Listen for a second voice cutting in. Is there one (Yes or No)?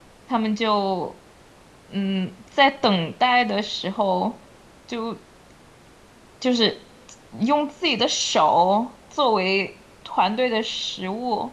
No